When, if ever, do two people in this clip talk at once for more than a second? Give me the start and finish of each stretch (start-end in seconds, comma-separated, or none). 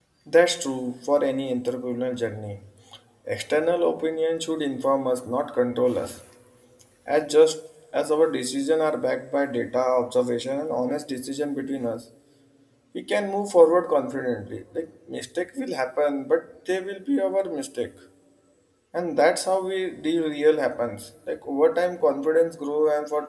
none